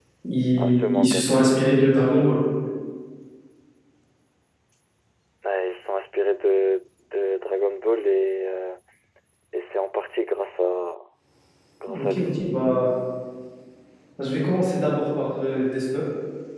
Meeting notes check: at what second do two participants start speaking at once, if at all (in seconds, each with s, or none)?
0.6 s